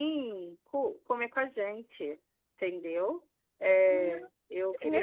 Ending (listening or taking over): taking over